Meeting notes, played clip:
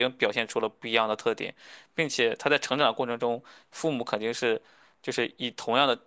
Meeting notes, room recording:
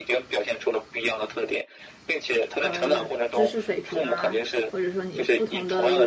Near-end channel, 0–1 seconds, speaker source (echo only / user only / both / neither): echo only